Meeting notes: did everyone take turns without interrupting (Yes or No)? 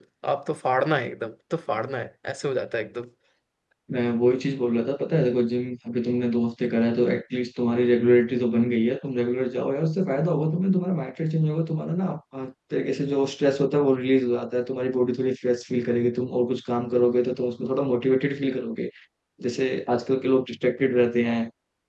Yes